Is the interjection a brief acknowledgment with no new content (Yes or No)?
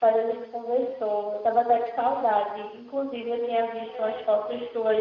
Yes